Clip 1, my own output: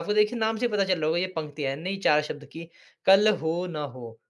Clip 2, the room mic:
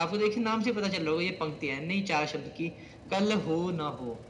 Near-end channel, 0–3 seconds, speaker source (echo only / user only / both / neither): echo only